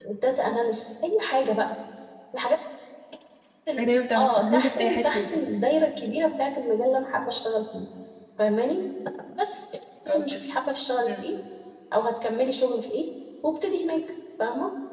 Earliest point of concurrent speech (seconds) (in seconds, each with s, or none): 3.8 s